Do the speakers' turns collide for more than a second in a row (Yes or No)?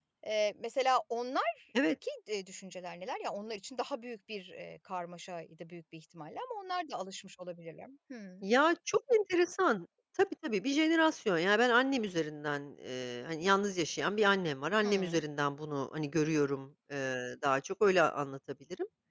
No